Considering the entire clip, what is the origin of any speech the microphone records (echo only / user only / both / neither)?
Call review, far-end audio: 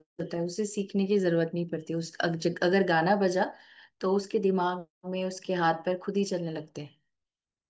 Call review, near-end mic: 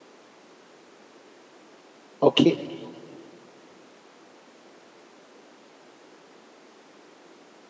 user only